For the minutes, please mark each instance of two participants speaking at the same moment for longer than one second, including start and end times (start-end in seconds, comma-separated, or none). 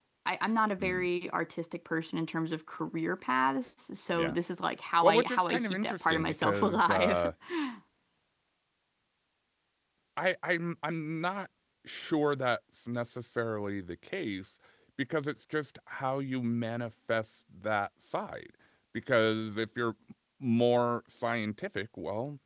5.0-7.2